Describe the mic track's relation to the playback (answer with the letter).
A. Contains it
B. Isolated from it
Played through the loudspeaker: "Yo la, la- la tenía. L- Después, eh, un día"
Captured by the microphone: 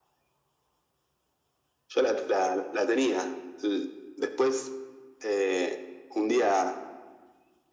A